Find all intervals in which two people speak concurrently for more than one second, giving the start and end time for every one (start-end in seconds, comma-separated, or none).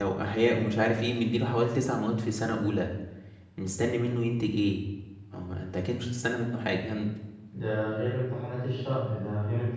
none